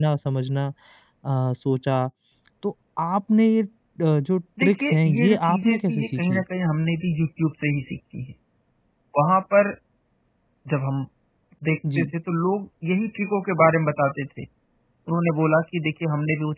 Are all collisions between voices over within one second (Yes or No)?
No